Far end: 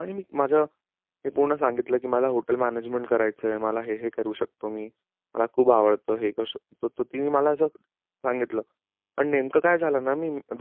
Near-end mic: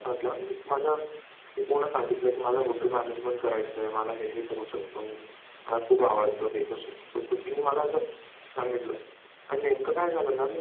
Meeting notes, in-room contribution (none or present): none